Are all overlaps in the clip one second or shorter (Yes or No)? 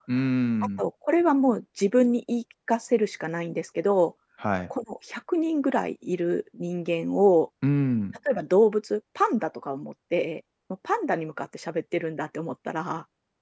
Yes